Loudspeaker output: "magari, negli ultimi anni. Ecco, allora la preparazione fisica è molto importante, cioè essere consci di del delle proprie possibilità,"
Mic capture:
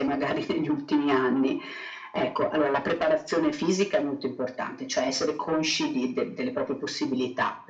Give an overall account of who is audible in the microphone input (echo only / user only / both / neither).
echo only